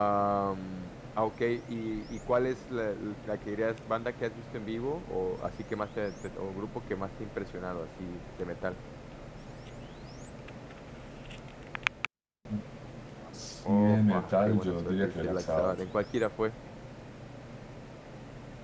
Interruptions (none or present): present